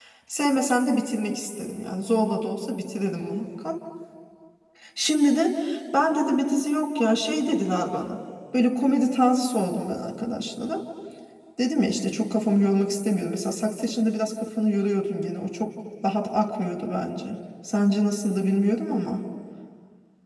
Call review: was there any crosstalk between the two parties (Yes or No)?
No